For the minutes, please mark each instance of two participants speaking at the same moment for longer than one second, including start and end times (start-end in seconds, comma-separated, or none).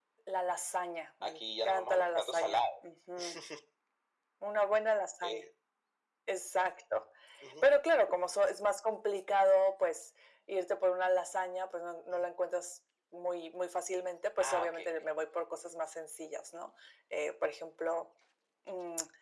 1.2-2.7